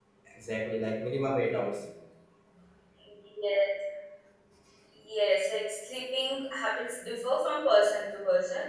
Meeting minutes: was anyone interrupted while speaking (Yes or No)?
No